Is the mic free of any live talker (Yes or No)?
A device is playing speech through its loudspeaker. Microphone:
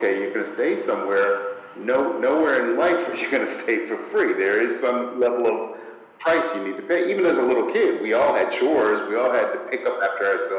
Yes